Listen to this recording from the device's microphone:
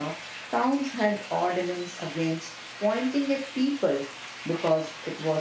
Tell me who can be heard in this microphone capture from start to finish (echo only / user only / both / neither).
user only